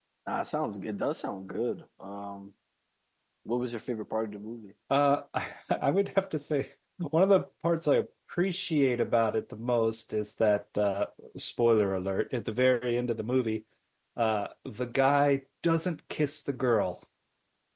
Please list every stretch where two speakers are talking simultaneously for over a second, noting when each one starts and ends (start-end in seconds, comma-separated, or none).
none